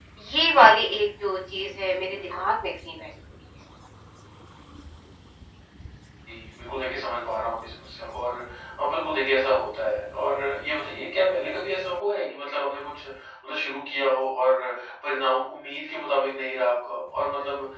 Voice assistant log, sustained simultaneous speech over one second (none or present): none